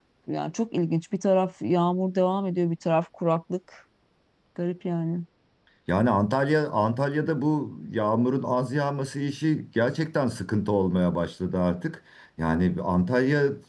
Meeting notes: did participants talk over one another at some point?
No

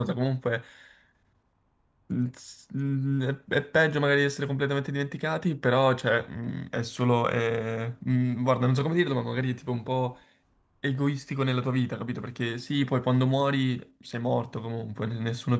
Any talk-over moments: No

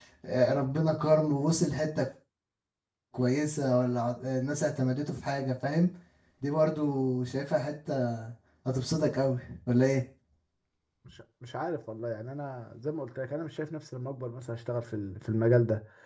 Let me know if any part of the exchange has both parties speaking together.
No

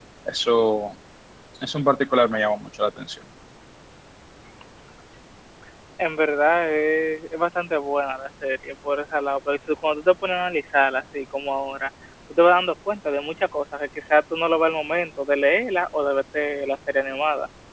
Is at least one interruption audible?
No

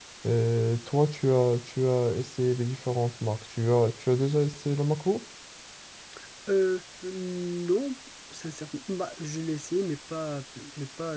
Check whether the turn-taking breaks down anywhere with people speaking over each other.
No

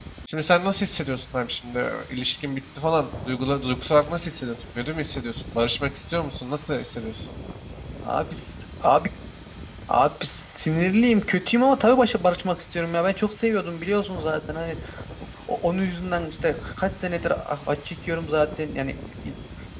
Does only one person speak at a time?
Yes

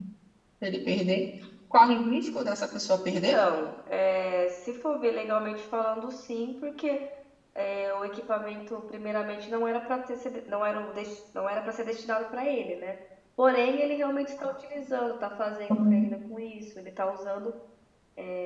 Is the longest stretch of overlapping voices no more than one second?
Yes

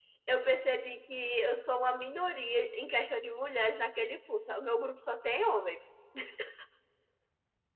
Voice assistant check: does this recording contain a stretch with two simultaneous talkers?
No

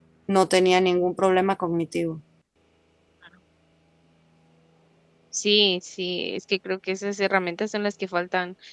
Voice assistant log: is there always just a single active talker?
Yes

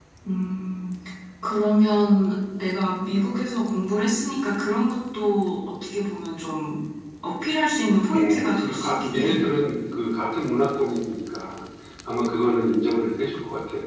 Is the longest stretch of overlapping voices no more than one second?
No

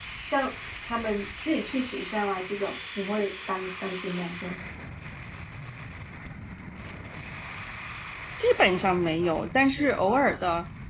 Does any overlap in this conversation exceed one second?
No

